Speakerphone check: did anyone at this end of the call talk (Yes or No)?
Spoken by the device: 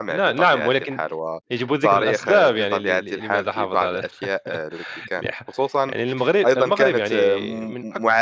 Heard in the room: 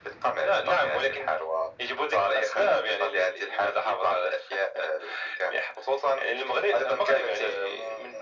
No